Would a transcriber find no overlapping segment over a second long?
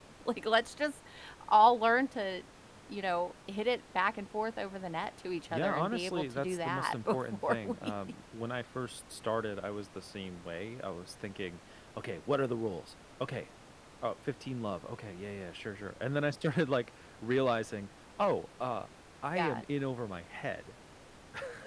No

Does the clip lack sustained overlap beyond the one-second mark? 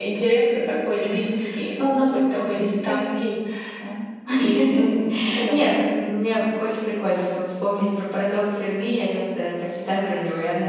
No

